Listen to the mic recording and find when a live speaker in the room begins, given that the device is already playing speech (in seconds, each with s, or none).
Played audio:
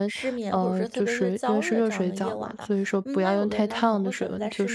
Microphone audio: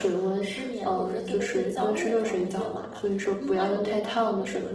none